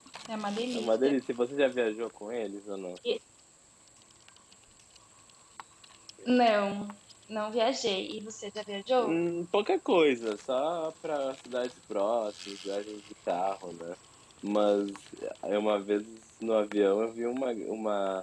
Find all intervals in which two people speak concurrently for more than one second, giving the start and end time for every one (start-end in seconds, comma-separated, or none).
none